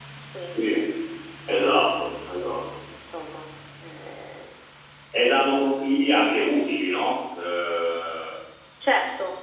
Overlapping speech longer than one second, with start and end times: none

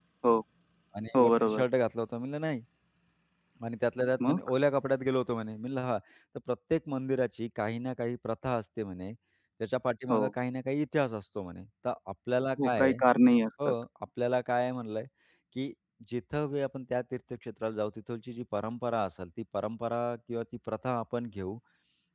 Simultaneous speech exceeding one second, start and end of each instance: none

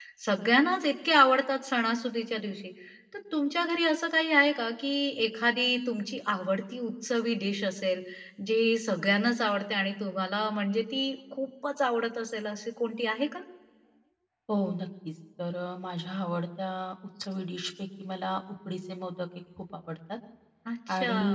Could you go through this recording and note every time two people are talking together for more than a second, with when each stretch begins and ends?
none

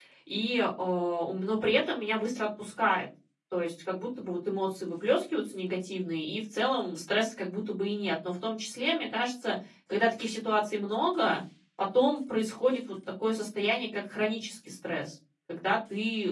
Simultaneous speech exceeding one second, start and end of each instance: none

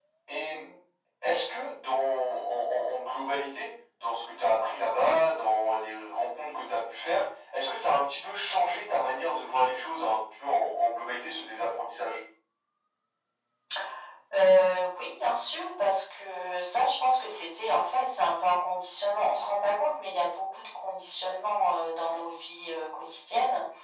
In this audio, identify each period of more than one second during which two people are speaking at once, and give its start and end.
none

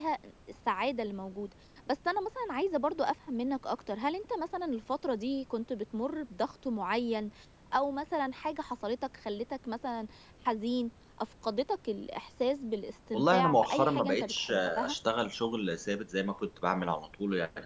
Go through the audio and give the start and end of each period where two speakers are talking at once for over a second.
13.1-14.9

